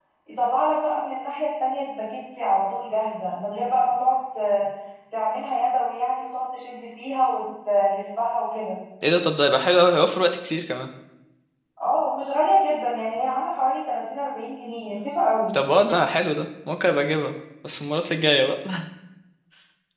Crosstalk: none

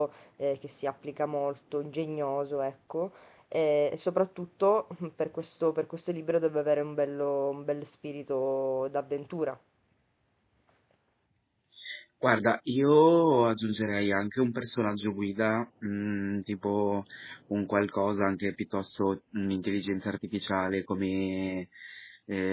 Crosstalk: none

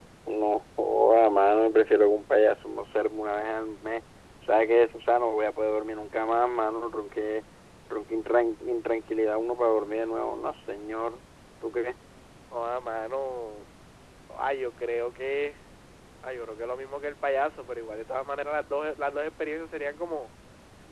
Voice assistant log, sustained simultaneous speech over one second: none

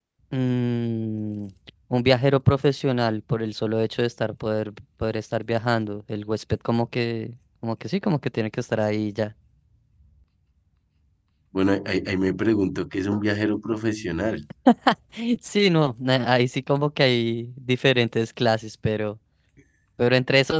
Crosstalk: none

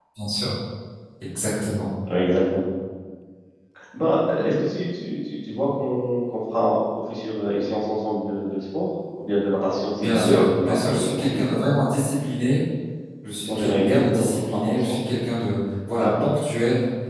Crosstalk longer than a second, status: present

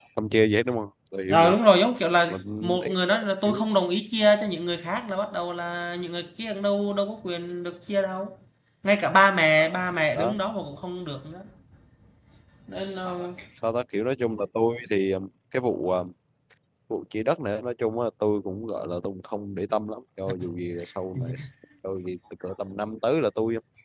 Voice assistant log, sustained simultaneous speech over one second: present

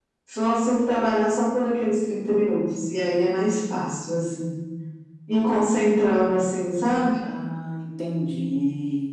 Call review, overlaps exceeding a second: none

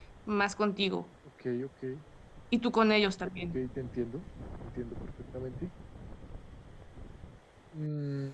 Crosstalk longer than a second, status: none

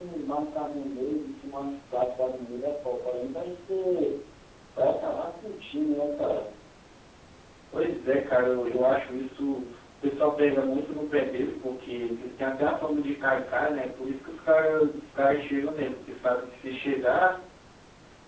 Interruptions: none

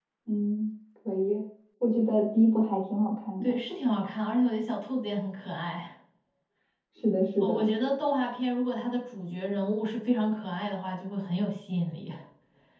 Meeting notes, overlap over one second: none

